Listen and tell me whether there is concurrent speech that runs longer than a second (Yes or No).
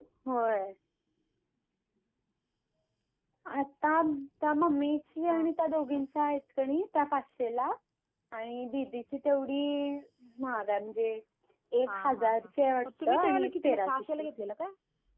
Yes